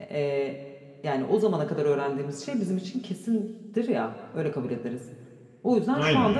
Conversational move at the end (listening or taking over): listening